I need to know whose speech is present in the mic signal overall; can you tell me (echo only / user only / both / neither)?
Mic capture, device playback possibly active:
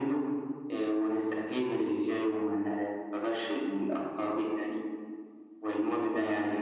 echo only